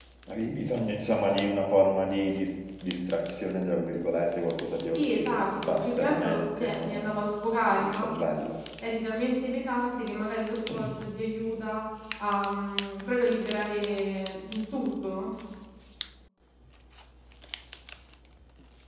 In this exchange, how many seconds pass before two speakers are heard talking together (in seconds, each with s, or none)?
4.9 s